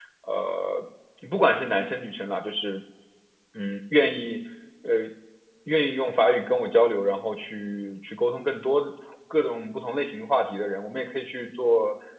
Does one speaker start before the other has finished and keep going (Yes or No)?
No